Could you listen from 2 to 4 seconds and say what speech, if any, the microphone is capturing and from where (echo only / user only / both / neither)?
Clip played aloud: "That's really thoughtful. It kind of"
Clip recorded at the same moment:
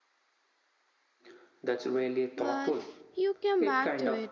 both